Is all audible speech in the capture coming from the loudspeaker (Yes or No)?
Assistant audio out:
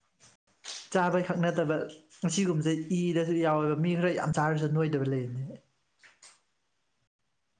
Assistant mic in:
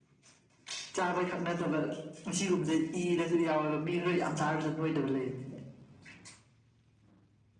Yes